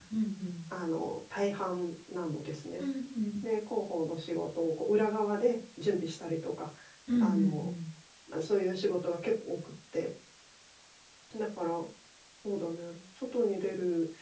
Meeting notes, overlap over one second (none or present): none